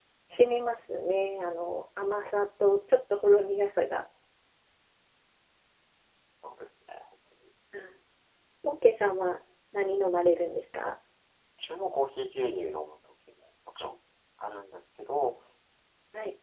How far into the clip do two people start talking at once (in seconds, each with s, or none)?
none